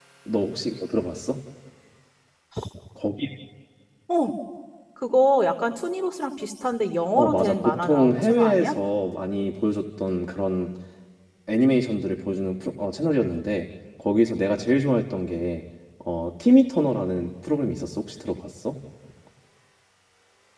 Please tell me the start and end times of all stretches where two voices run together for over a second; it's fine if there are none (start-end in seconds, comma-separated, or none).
7.2-8.7